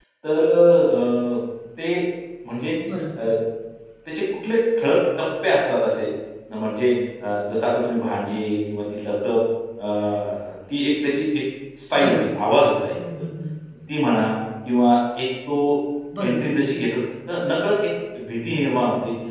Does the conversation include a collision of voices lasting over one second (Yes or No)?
No